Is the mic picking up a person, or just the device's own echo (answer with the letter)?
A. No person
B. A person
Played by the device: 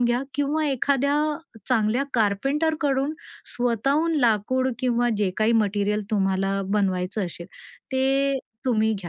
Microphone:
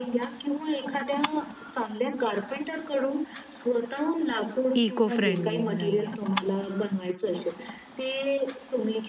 B